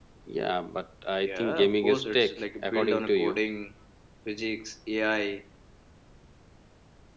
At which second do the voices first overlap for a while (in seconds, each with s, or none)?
1.1 s